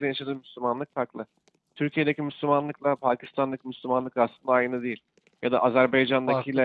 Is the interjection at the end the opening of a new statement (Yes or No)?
No